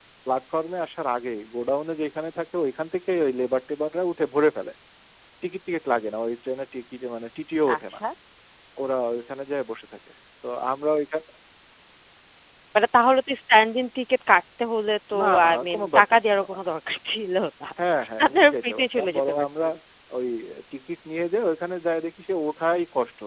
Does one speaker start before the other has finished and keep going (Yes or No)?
Yes